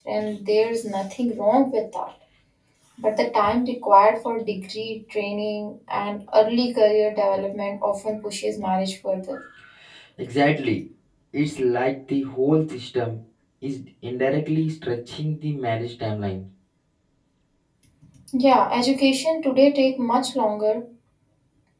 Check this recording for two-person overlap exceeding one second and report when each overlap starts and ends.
none

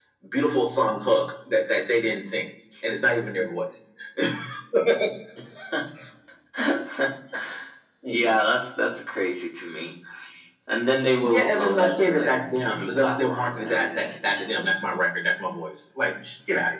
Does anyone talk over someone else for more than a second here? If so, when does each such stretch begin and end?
11.2-14.7

